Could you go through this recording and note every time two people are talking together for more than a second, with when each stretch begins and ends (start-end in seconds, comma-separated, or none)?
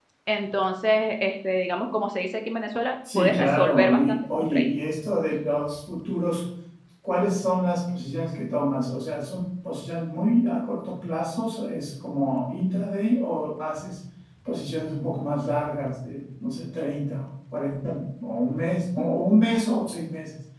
3.1-4.7